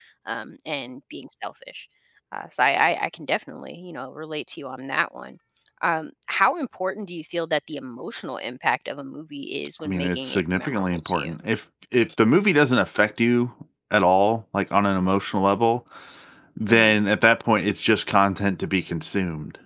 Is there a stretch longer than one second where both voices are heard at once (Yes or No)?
Yes